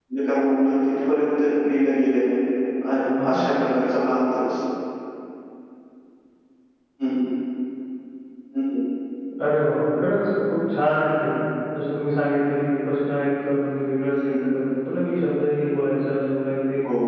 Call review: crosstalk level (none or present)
none